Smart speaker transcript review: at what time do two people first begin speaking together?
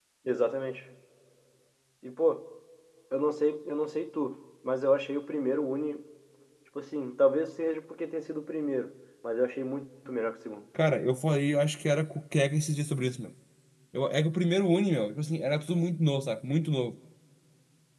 none

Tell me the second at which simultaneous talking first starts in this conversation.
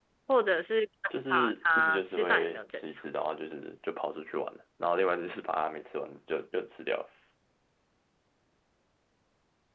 1 s

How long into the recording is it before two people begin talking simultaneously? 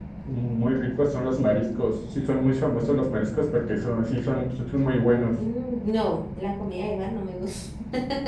none

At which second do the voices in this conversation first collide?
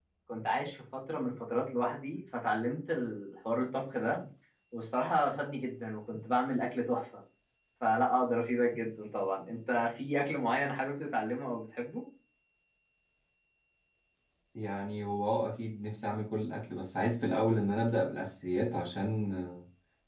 none

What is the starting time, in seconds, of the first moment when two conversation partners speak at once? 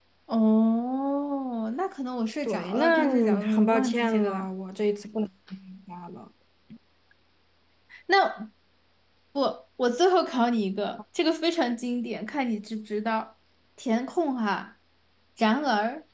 2 s

